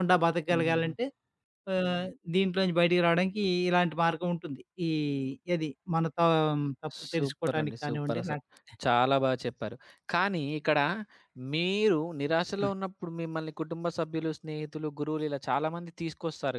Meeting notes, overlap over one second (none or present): present